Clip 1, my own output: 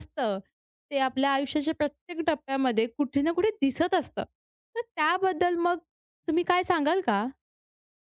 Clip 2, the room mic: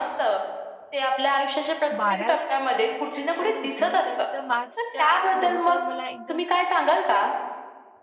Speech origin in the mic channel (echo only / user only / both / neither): both